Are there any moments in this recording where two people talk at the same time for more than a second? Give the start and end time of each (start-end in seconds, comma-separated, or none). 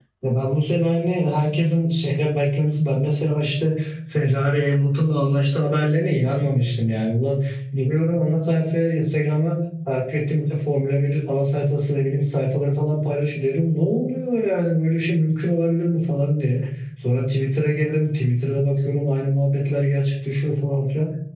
none